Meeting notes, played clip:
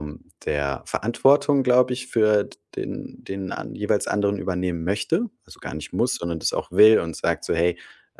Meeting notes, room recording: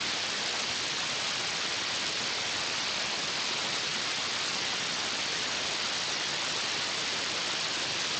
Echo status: none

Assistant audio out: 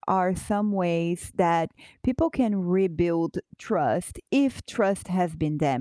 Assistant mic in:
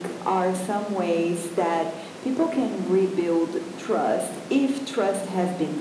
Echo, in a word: present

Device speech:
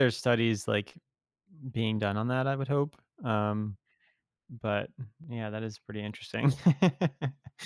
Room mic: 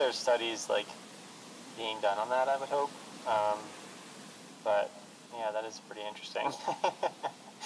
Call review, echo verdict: present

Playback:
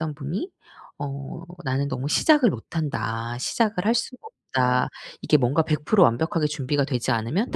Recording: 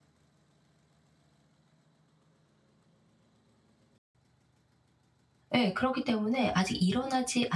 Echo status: none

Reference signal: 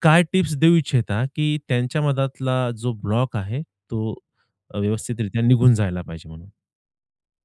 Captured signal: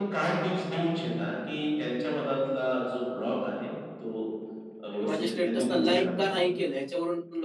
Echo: present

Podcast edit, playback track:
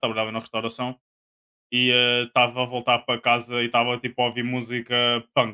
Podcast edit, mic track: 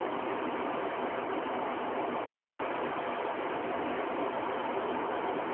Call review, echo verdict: none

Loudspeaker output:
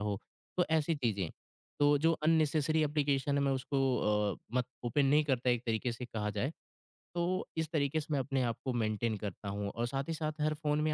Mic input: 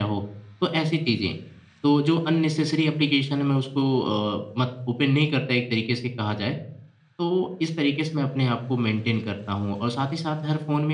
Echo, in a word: present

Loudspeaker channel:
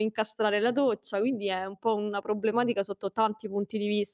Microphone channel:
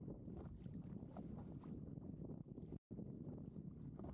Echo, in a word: none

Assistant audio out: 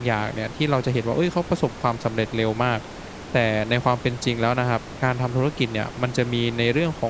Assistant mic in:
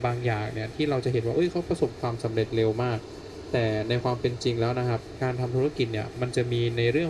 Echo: present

